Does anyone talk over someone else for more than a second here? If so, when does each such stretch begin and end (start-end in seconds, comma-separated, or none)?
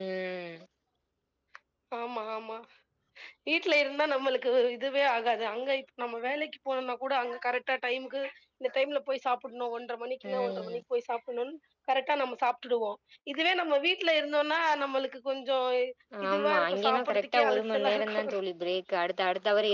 16.3-18.3